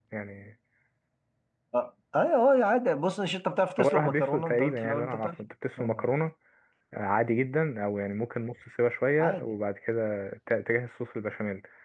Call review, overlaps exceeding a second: present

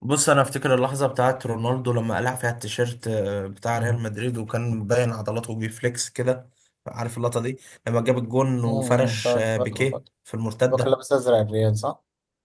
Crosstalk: present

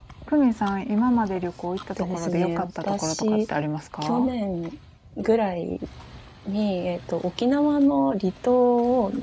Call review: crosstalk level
present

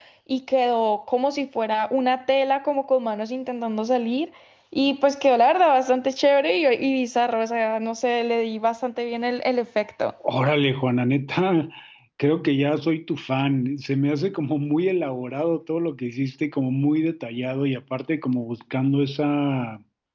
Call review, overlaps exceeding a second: none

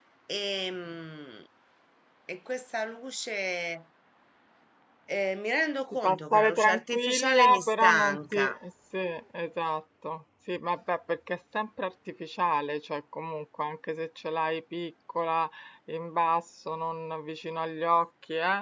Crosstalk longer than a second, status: present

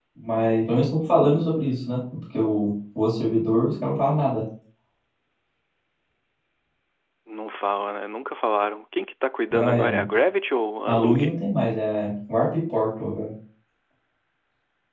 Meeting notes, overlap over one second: none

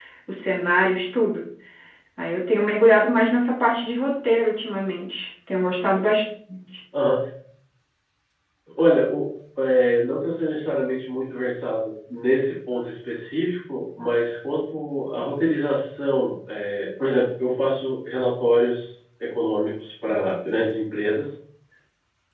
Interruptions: none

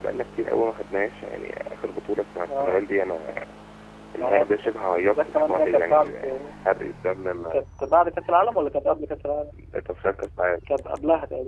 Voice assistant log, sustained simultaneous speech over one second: present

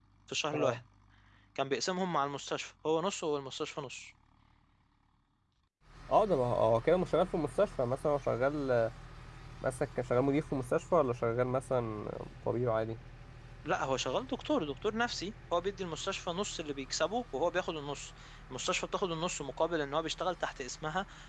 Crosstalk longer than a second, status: none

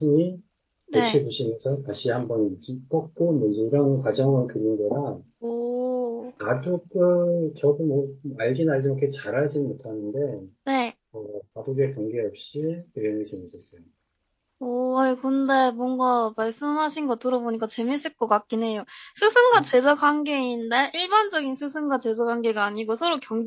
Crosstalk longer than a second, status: none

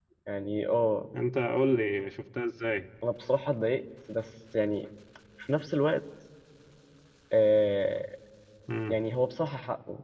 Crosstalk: none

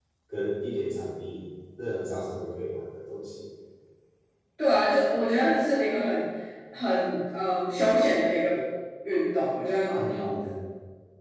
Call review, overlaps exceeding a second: none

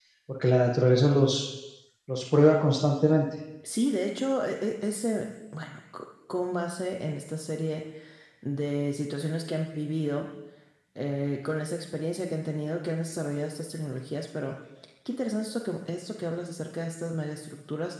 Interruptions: none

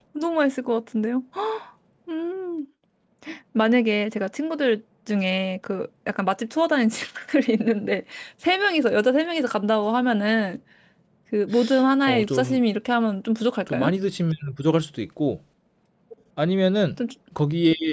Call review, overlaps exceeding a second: none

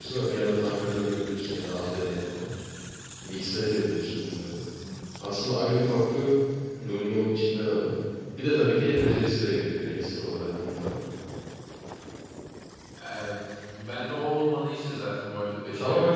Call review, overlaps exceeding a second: none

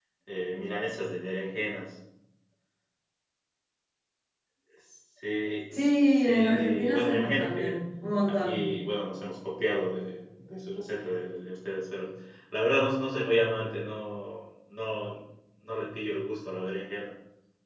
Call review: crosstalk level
present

